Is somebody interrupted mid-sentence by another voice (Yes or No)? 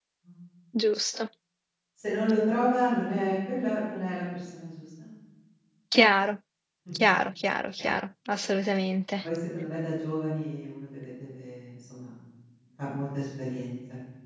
No